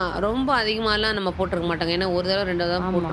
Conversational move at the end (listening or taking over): taking over